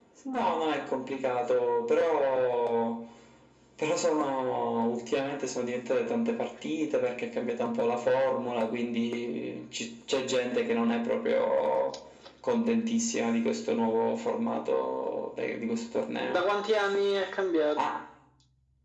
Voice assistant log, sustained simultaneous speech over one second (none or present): none